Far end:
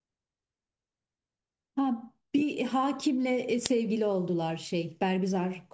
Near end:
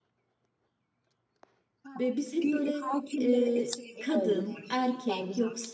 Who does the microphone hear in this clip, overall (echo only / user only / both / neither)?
both